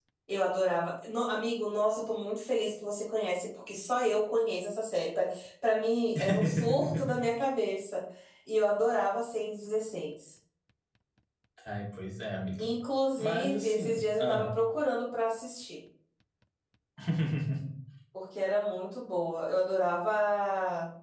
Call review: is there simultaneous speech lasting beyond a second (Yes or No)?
Yes